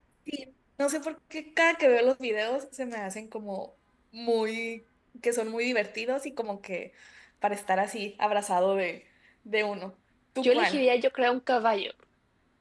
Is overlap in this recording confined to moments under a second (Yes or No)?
Yes